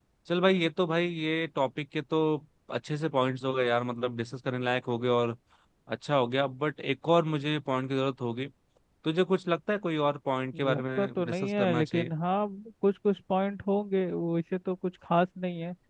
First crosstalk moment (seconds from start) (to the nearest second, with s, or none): 11 s